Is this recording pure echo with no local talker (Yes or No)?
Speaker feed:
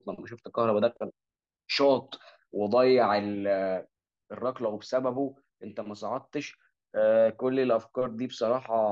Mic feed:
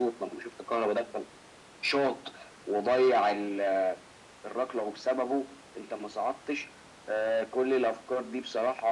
Yes